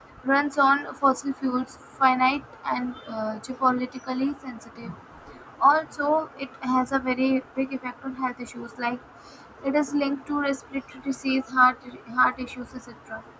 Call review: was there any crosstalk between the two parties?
No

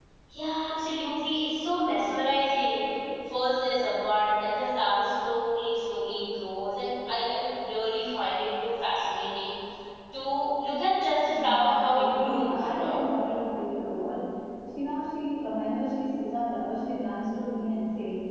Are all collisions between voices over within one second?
No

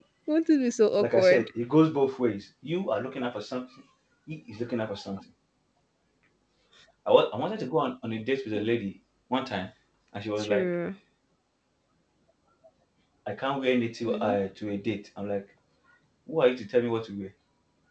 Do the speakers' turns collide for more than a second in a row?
No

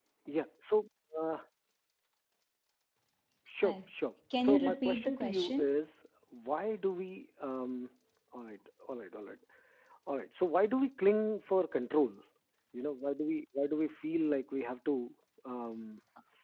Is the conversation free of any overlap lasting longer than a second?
No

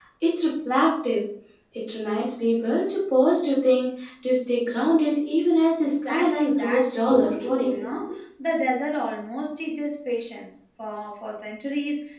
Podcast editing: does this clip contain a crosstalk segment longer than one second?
Yes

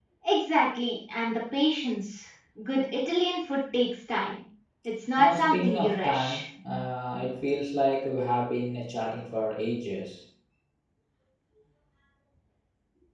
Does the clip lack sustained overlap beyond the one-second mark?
No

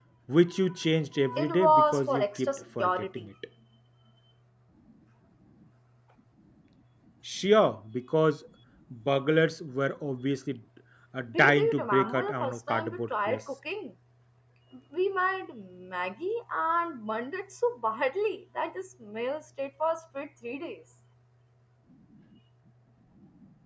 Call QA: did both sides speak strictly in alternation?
No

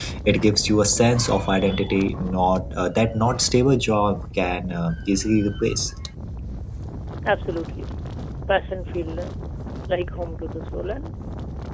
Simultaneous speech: No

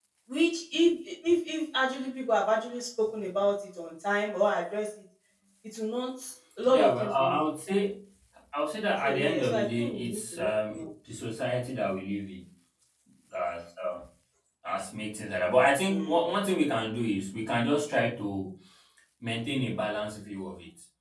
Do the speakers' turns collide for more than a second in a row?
Yes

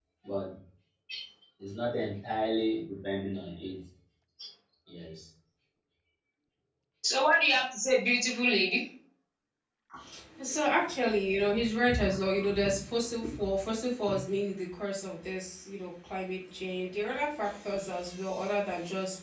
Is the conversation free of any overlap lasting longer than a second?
Yes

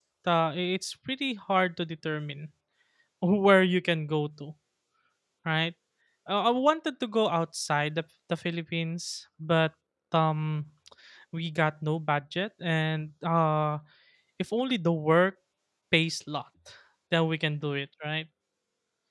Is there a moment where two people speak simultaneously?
No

